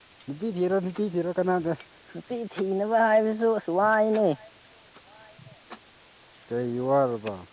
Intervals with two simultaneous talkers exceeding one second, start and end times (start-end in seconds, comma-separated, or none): none